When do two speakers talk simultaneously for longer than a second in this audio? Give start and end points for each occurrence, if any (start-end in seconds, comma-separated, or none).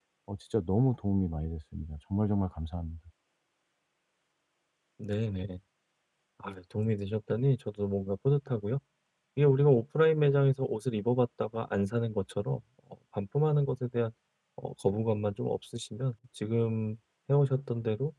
none